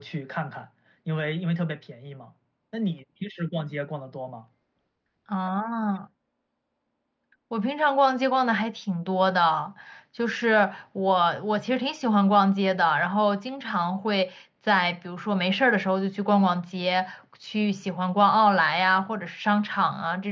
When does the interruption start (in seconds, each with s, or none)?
none